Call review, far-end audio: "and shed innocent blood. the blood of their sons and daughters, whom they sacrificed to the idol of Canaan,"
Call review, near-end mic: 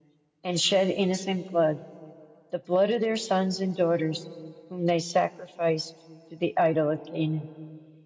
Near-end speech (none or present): none